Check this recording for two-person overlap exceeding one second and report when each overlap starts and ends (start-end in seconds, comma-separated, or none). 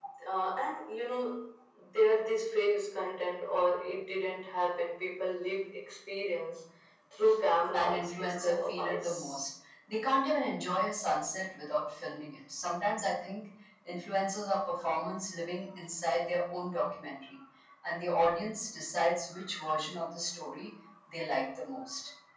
7.7-9.1